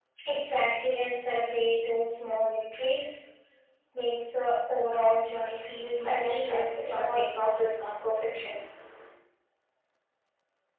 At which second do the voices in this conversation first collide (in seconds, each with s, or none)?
5.9 s